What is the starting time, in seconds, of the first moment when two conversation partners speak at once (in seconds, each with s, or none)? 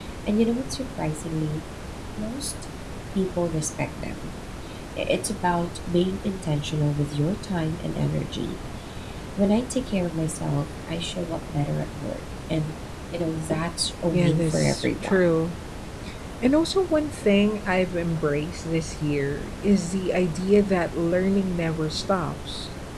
14.1 s